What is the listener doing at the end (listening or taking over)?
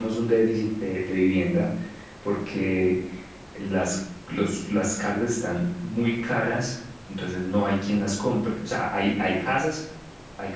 listening